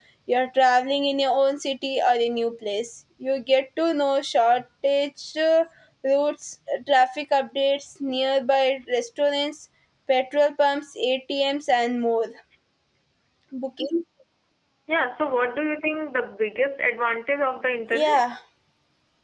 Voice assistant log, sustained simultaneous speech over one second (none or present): none